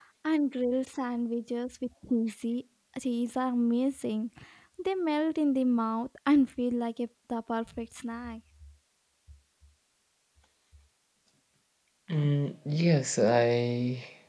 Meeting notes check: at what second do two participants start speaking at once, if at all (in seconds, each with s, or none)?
none